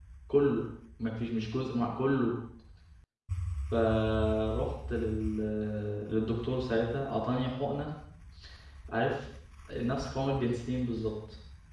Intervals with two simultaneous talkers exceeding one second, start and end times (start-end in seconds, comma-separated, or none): none